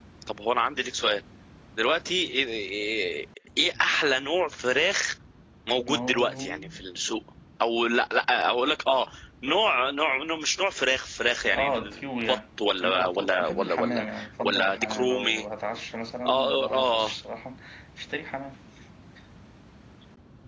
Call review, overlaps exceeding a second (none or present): present